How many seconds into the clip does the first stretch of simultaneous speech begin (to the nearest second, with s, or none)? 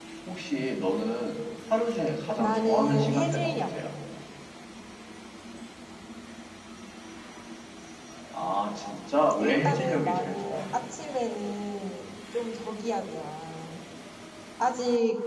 2 s